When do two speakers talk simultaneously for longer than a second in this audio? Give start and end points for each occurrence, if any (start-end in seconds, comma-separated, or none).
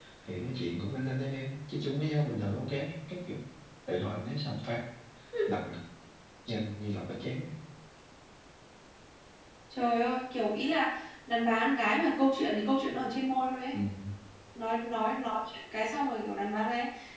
none